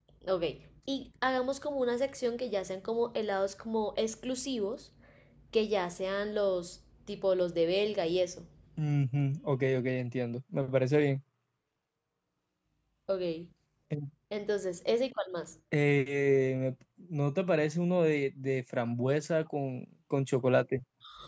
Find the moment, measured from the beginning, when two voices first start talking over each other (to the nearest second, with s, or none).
none